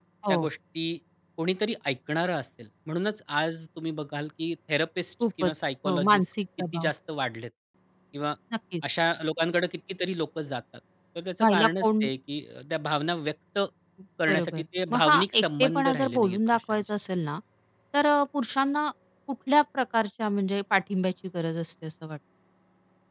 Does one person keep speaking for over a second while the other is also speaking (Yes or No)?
Yes